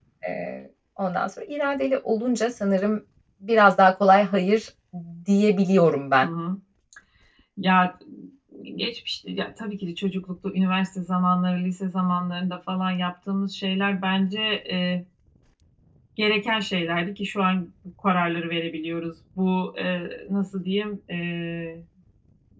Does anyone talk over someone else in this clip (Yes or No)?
No